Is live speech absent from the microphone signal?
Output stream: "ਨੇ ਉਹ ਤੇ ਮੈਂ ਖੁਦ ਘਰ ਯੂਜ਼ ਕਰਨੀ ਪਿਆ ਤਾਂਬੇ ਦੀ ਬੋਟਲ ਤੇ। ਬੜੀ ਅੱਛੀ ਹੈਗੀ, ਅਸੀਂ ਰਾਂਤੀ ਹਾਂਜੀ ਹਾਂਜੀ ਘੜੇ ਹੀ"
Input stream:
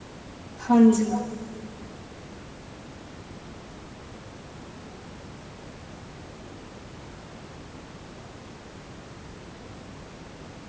No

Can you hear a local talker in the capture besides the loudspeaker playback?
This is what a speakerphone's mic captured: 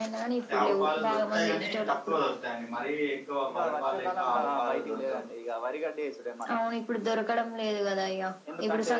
Yes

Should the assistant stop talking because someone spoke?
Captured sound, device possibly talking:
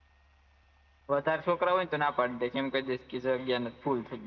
No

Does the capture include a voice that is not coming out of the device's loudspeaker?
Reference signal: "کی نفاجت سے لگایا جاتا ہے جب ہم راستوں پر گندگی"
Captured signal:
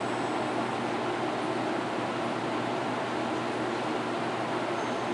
No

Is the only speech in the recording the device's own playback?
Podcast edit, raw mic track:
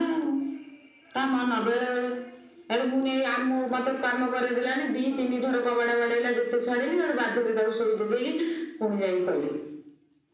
Yes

